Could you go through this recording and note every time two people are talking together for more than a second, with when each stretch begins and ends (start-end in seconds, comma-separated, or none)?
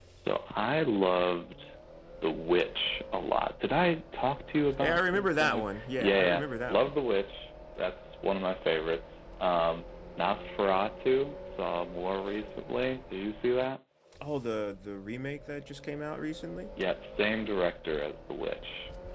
4.8-6.9